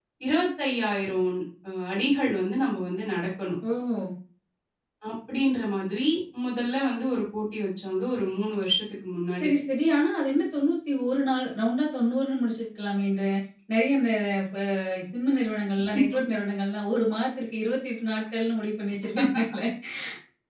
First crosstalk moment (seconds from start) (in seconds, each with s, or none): none